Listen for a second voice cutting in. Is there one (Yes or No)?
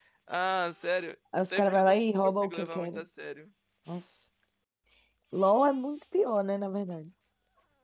Yes